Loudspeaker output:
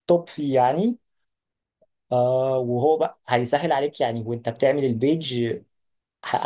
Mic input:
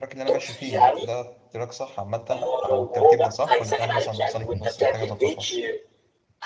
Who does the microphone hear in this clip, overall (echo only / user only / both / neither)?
both